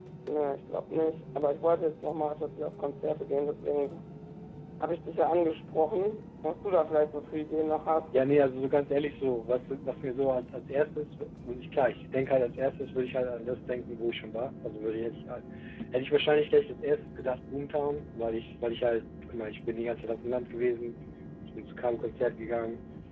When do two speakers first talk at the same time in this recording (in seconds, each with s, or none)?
none